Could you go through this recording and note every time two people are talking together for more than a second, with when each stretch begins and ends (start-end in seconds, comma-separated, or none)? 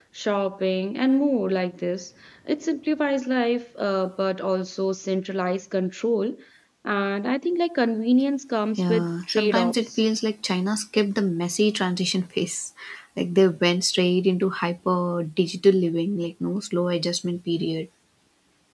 8.8-10.0